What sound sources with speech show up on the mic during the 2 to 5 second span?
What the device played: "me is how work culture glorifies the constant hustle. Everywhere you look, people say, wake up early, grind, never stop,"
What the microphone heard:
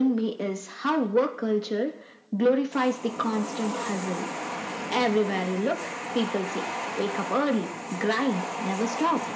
echo only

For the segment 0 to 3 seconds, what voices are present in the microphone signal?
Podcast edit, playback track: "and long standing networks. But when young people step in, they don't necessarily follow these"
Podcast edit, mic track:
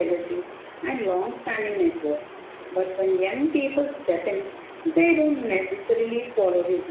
echo only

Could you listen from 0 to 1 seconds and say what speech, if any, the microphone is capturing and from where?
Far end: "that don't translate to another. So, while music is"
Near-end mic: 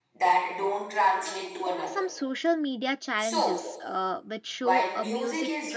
echo only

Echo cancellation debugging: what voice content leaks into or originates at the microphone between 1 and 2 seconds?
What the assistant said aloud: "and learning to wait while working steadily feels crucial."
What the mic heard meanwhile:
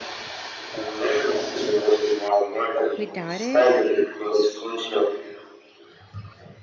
echo only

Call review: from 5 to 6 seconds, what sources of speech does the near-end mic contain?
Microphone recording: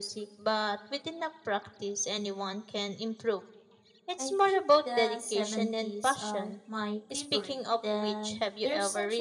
both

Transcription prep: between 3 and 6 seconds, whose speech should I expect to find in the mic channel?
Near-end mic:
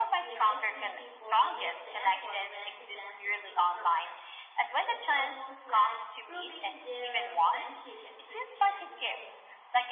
both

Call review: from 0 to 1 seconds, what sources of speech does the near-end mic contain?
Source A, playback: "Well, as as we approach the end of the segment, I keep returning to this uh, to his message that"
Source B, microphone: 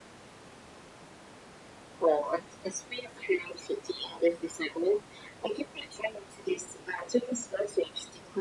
neither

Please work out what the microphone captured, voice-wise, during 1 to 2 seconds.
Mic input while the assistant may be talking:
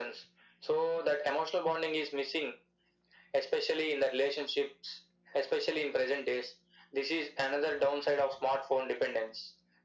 echo only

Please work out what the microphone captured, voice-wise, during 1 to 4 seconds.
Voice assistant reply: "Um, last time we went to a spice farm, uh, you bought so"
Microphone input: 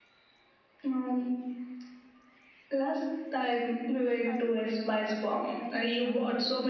echo only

